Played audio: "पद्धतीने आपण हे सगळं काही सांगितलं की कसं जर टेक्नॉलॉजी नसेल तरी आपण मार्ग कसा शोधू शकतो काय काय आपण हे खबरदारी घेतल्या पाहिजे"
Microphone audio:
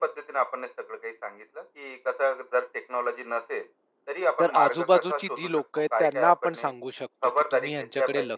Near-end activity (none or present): present